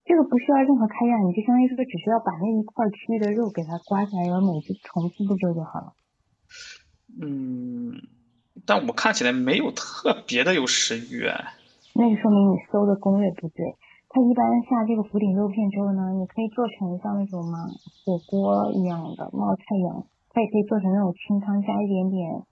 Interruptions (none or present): none